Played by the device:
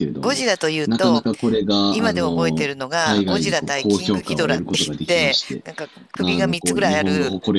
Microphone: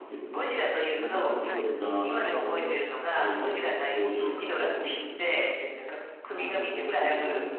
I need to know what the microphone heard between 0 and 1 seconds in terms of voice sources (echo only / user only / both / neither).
echo only